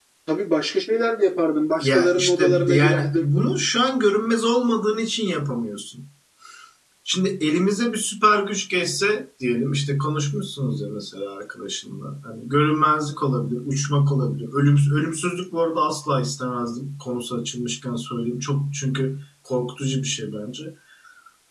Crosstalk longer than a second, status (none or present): present